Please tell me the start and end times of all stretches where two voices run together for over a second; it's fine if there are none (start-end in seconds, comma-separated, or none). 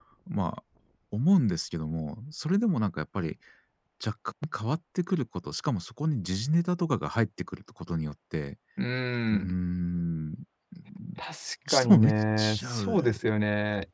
11.7-13.2